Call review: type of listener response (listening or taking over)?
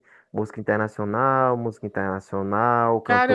taking over